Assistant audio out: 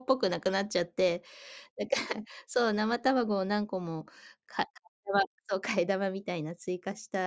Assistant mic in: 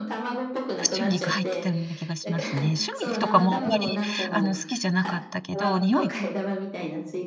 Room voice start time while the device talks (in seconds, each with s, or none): 0.8 s